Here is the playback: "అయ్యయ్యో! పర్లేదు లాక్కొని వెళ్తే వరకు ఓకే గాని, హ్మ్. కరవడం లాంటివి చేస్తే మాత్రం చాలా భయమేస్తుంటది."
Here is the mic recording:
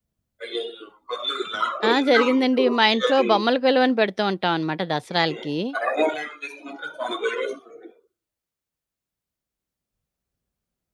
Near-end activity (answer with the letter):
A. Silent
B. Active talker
B